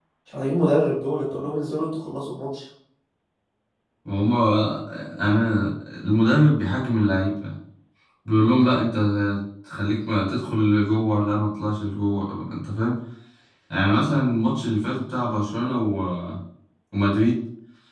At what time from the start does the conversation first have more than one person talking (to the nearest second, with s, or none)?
none